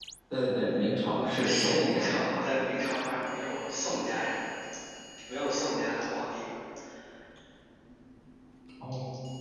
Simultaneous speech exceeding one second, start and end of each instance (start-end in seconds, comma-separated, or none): 1.1-2.4